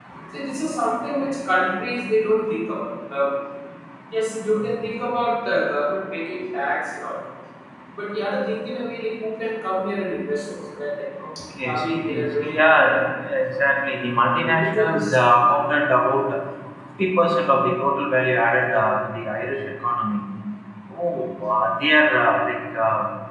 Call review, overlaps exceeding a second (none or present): present